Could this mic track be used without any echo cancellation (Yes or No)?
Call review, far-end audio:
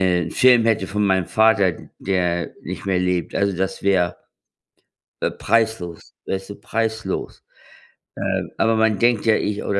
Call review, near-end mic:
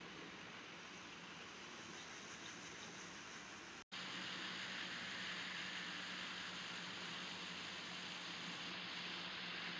Yes